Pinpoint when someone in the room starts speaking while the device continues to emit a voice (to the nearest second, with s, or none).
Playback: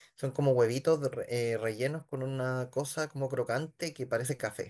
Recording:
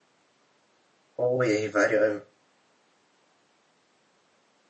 1 s